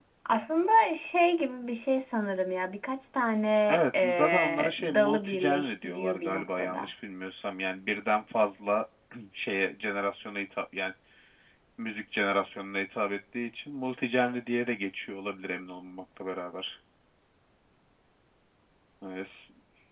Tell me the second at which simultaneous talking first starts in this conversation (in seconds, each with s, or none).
3.7 s